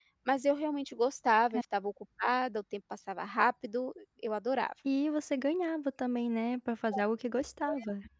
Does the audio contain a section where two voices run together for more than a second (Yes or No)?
No